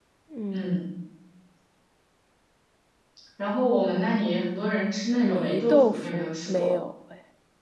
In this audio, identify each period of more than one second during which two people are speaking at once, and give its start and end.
5.2-6.7

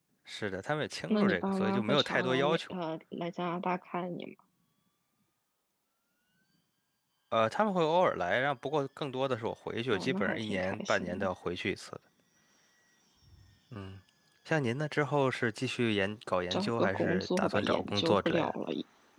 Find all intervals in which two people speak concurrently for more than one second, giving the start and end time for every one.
1.1-2.7, 9.9-11.3, 16.5-18.6

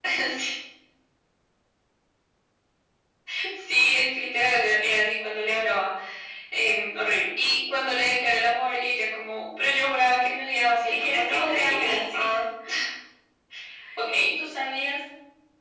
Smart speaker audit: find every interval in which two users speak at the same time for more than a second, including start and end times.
10.9-12.4

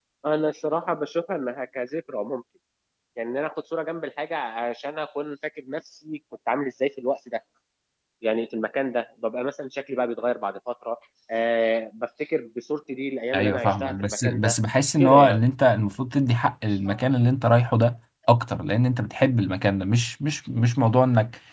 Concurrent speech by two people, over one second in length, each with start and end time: 13.3-14.6

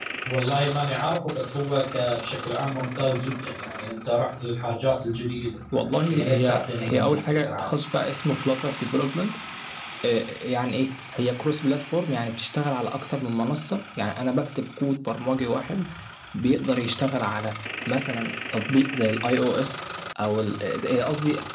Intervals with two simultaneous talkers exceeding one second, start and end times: 5.7-7.7

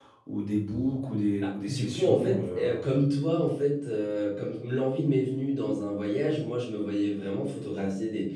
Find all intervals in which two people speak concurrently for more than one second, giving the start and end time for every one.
1.4-2.8

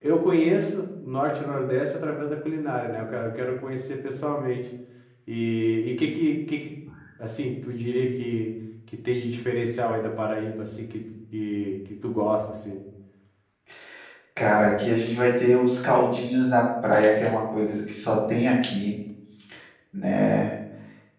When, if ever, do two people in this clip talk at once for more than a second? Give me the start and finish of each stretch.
none

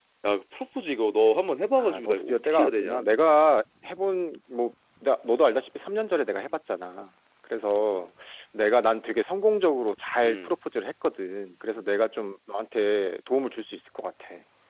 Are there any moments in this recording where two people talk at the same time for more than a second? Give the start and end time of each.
1.8-3.0

